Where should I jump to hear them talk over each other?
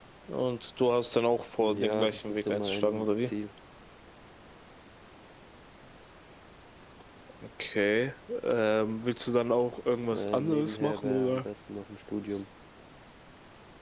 1.6 s

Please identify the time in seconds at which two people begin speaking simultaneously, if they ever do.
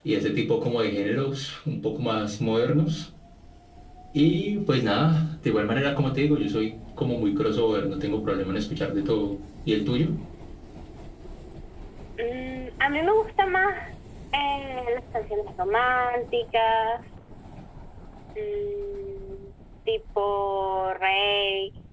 none

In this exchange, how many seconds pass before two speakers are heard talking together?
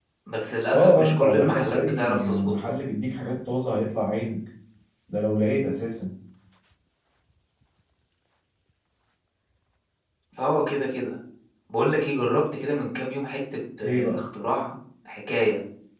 0.7 s

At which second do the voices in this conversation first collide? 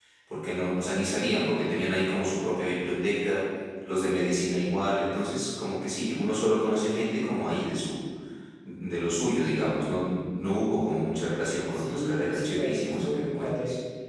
11.7 s

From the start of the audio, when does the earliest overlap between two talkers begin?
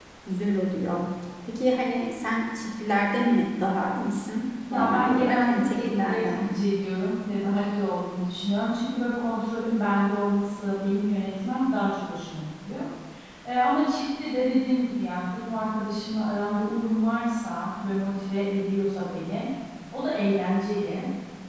4.7 s

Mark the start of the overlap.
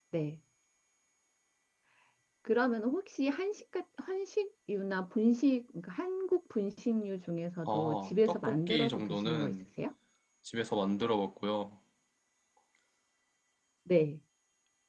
7.7 s

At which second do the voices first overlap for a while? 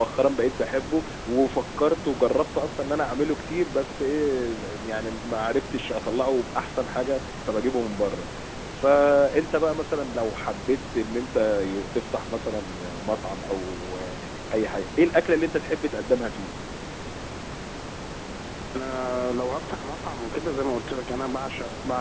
none

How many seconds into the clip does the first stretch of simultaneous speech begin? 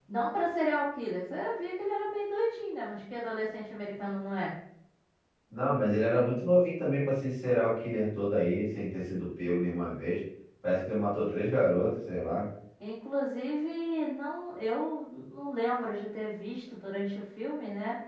none

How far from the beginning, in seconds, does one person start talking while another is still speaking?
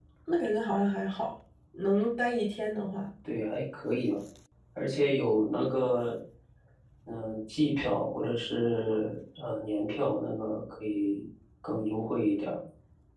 none

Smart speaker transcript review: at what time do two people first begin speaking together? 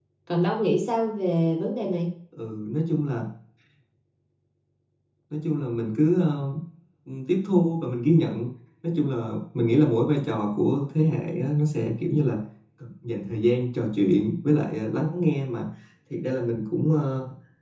none

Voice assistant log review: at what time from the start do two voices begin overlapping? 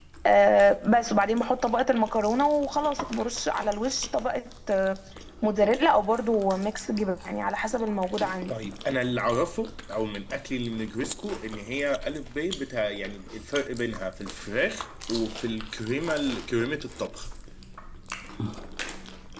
none

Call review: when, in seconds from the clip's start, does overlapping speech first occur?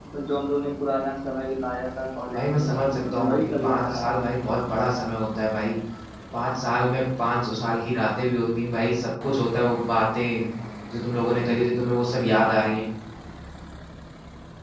2.3 s

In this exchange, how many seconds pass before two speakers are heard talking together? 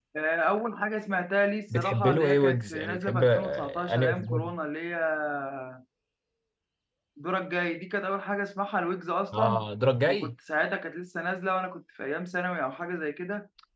1.8 s

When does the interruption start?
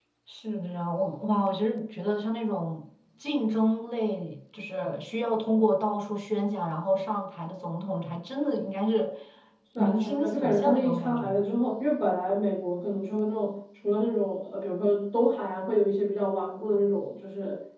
9.8 s

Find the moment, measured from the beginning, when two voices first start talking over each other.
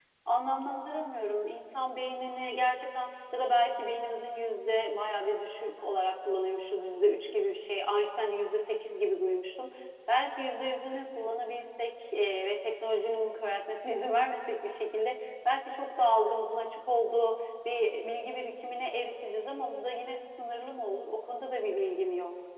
none

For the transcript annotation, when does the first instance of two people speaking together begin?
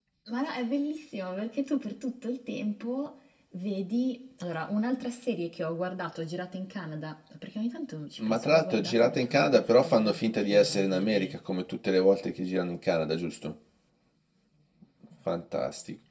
8.2 s

